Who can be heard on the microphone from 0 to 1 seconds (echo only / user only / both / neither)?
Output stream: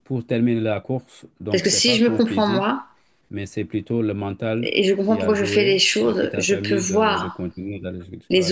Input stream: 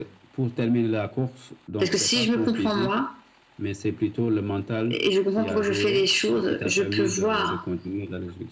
echo only